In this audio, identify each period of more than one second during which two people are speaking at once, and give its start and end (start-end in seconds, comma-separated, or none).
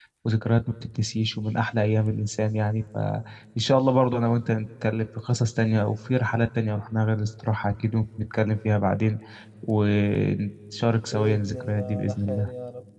11.1-12.5